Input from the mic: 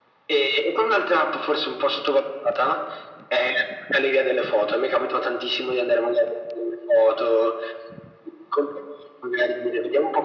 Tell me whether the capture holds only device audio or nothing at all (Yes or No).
Yes